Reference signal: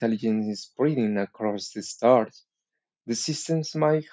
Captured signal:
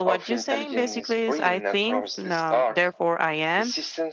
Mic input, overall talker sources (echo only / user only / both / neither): both